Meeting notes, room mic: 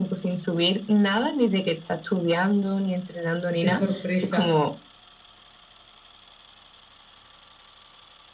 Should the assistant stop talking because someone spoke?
Yes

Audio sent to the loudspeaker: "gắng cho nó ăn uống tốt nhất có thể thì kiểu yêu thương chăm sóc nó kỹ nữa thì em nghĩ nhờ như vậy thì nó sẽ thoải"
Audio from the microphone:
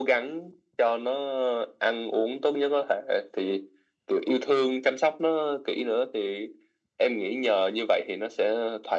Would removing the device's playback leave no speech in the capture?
Yes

